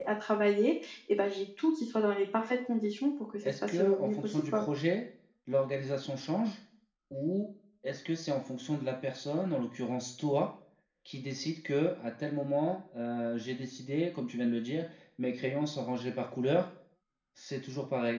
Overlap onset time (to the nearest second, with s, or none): 3 s